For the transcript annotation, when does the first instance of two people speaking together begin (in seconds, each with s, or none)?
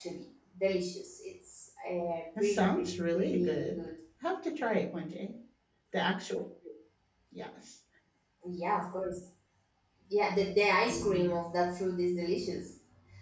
2.4 s